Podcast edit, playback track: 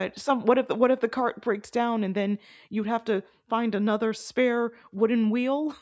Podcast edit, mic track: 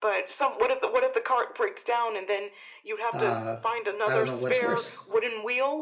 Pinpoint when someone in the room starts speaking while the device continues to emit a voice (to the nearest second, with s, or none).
3 s